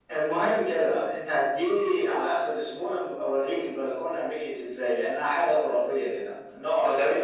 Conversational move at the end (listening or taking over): listening